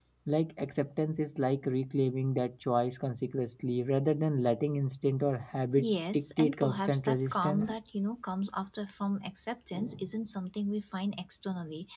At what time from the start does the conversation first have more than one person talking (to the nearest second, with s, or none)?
6 s